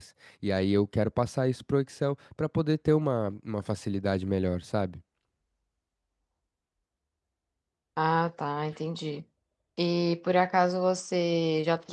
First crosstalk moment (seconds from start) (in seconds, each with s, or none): none